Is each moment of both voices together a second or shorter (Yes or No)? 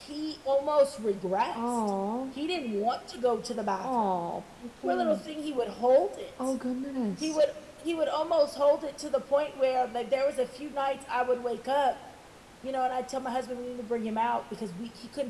Yes